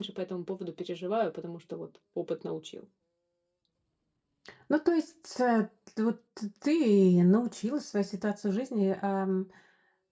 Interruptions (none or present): none